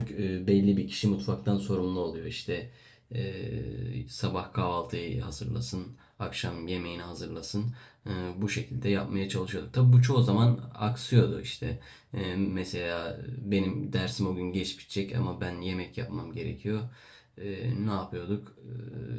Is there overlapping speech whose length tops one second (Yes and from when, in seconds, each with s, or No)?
No